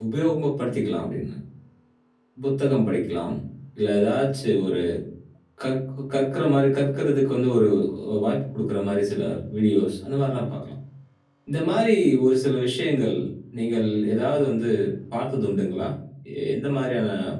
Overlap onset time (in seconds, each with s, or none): none